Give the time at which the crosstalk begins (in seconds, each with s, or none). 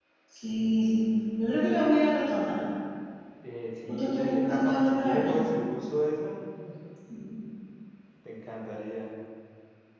3.9 s